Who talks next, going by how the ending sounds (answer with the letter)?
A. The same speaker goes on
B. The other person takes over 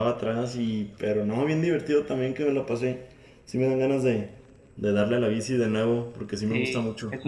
B